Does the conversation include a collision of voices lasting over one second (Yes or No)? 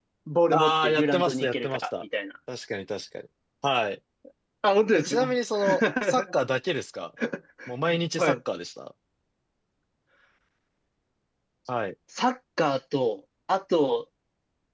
Yes